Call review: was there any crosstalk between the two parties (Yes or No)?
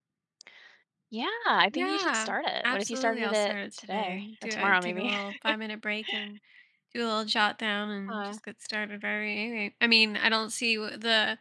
Yes